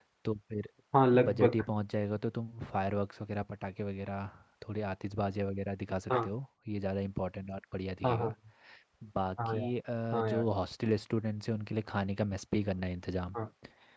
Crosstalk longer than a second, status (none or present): none